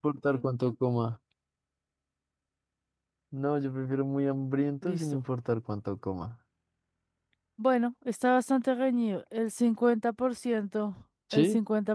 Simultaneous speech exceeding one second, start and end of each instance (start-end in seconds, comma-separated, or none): none